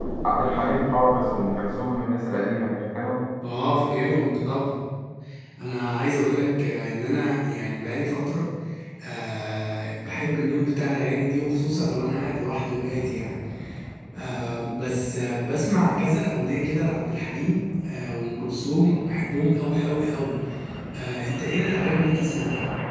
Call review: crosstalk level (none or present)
none